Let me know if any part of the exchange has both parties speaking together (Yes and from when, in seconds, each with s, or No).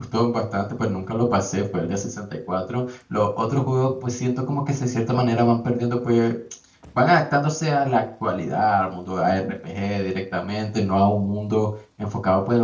No